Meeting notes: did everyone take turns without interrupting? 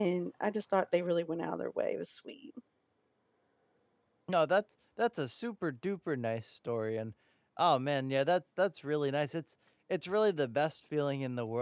Yes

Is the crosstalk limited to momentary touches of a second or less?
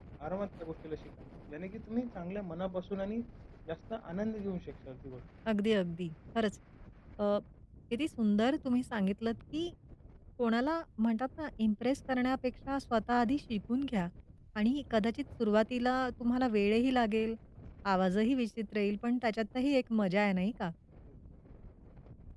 Yes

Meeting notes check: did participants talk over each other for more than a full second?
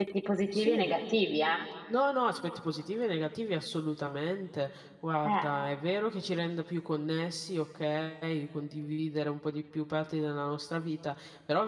No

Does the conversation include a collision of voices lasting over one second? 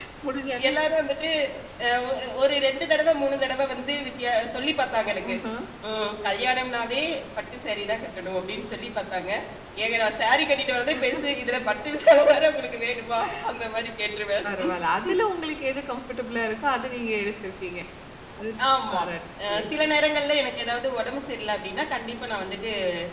No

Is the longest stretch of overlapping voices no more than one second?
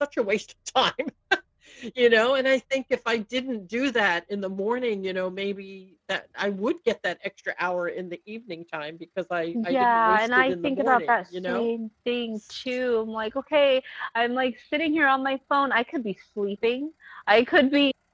No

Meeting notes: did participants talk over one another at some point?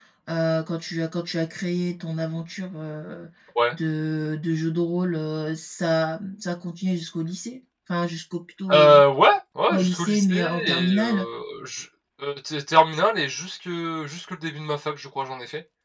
Yes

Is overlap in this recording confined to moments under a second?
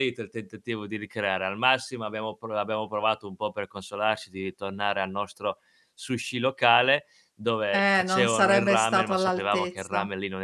No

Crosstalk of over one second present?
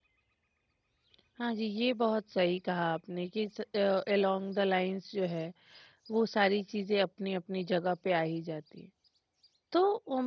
No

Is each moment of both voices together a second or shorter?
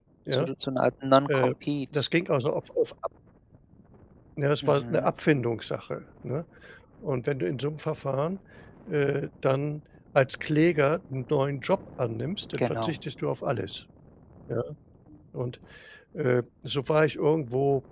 Yes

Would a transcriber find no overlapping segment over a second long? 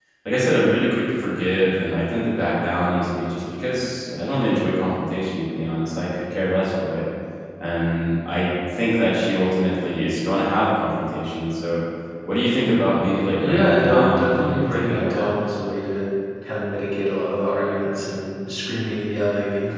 No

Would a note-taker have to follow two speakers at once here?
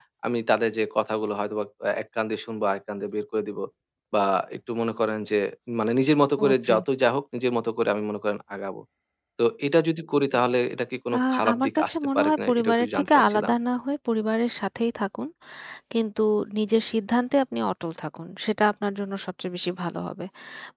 Yes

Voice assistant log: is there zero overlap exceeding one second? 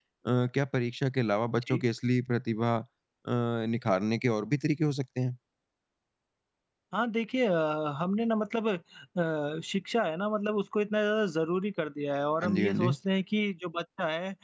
Yes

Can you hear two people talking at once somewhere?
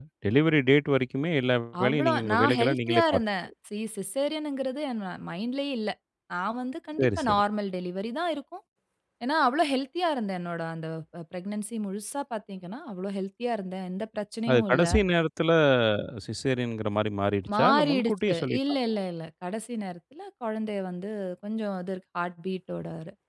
Yes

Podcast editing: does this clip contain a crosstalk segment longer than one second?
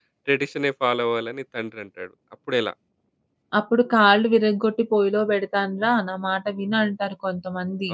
No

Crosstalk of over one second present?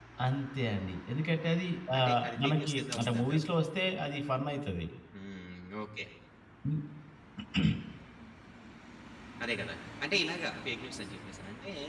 Yes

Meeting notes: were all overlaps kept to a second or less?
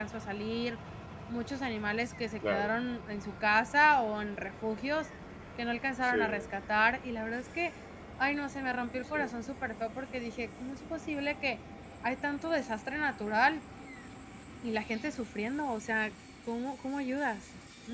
Yes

